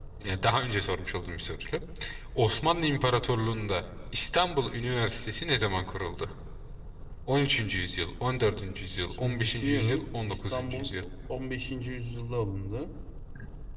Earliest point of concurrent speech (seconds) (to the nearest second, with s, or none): 9 s